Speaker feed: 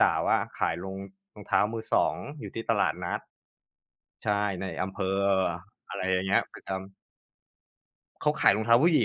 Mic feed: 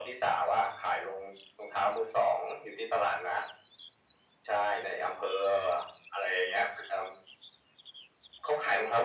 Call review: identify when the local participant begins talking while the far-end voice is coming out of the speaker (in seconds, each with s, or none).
none